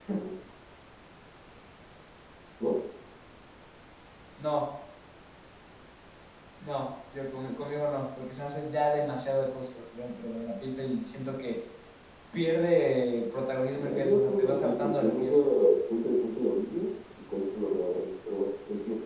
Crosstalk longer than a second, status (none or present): present